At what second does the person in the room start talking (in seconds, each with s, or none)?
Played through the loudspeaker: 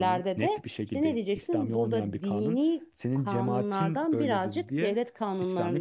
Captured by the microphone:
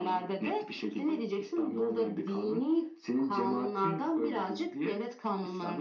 none